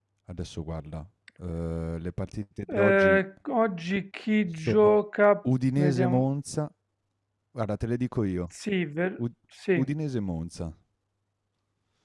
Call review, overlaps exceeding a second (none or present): none